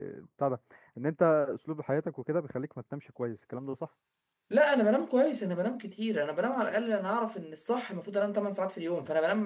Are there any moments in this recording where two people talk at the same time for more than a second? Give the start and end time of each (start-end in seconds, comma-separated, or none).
none